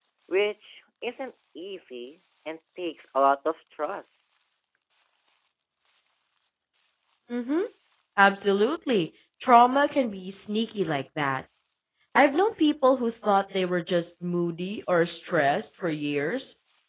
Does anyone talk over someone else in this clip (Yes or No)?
No